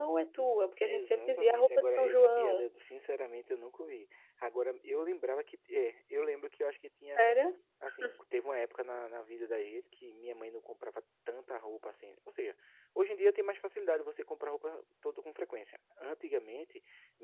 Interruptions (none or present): present